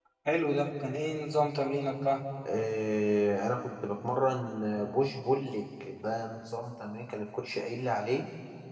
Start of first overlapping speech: none

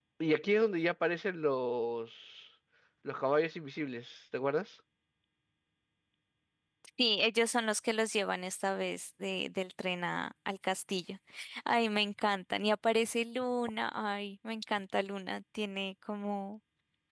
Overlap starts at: none

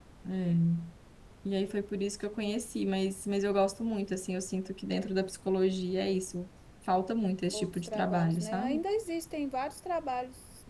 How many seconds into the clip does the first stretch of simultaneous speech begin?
7.5 s

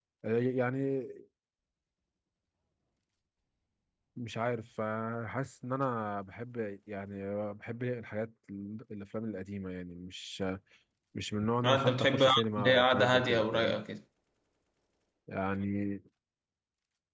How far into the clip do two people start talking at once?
11.6 s

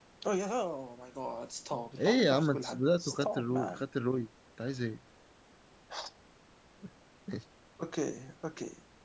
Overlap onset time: 2.0 s

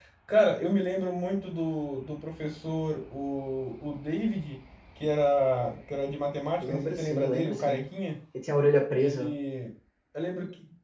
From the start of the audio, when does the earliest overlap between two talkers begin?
6.6 s

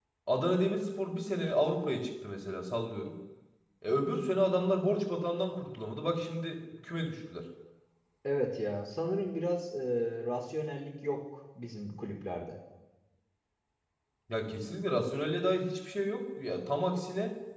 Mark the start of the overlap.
none

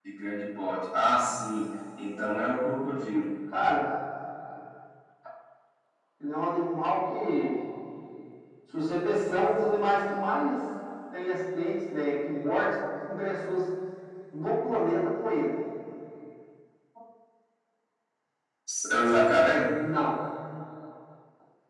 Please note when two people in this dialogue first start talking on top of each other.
none

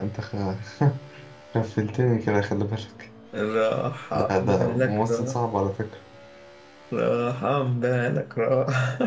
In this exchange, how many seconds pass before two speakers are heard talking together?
4.2 s

